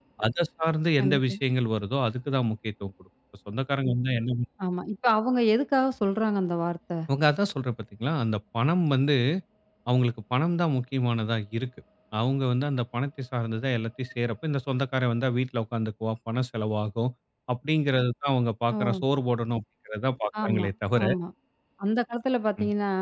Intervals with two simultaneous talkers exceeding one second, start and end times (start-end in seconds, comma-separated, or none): none